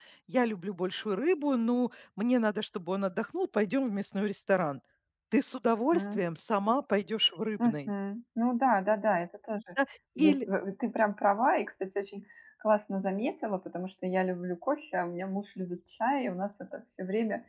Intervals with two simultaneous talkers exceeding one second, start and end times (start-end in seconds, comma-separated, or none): none